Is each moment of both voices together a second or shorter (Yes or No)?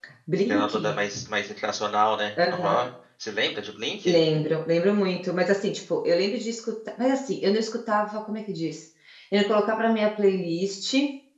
Yes